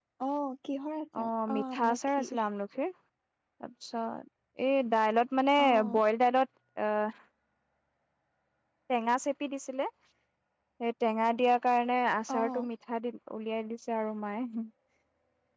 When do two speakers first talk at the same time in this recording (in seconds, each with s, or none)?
1.2 s